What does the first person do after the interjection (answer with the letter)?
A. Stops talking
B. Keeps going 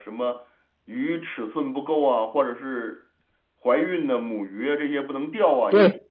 A